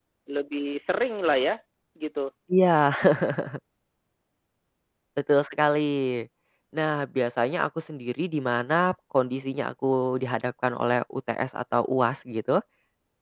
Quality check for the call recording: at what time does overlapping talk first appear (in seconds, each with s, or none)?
none